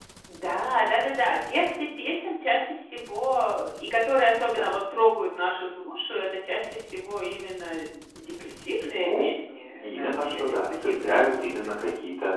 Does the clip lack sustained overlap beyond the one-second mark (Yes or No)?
No